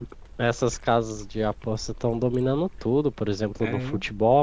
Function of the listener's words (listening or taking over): listening